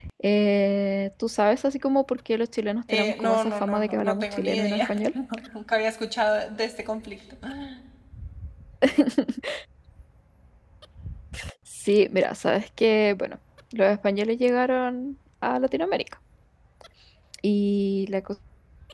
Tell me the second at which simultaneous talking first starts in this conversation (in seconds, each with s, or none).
2.9 s